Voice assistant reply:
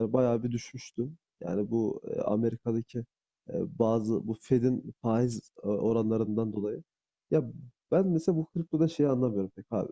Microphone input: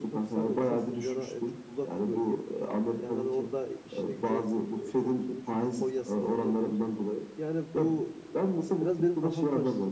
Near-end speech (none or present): present